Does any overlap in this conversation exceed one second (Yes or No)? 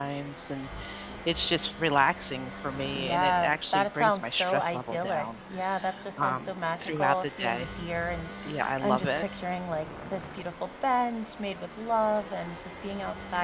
Yes